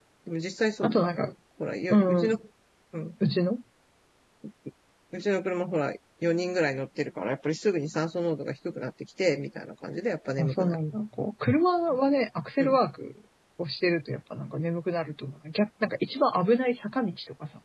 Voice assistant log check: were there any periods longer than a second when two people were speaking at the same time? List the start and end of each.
none

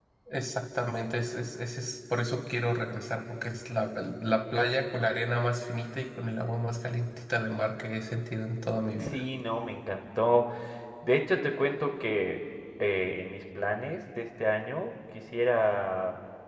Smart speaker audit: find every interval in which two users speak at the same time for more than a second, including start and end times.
none

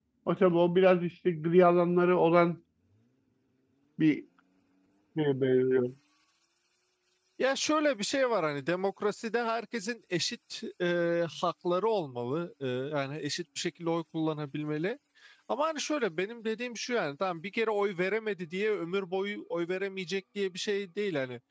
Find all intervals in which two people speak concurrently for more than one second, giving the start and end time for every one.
none

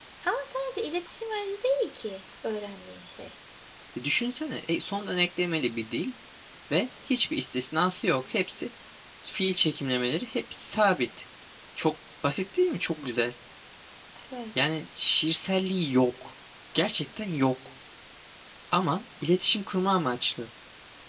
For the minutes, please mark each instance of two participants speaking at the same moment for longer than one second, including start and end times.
none

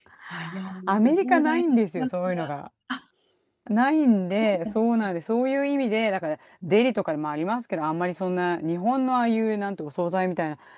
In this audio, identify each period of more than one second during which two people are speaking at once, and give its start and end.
0.9-2.1

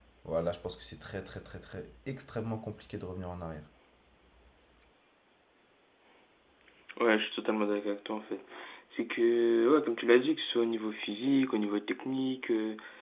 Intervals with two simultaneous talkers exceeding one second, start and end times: none

